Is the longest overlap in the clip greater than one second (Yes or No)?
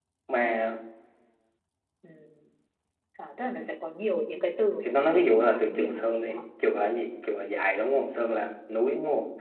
Yes